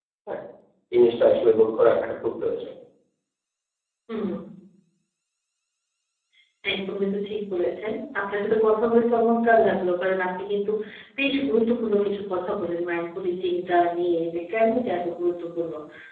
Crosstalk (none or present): none